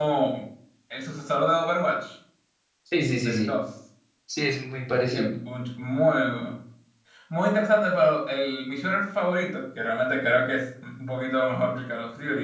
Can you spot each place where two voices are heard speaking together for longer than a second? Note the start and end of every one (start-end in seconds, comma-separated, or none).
none